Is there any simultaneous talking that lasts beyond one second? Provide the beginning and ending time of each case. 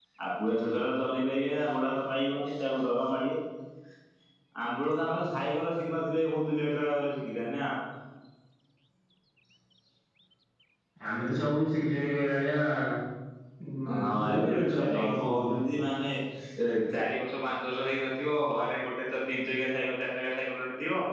14.0-15.5

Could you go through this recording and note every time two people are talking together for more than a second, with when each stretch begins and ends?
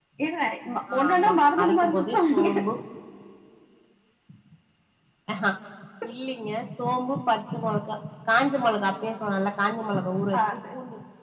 1.0-2.5

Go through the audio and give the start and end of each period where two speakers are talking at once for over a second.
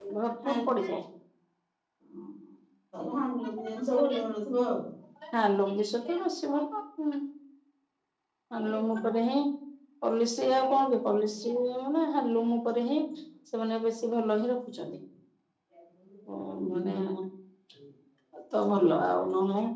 none

